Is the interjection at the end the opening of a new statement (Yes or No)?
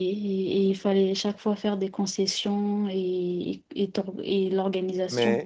Yes